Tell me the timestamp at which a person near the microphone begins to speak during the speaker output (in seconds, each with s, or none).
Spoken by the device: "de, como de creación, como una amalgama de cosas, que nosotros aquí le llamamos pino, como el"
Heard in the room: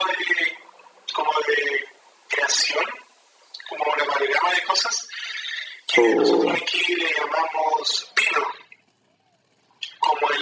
5.9 s